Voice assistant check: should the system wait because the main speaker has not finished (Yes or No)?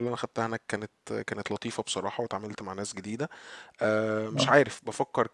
Yes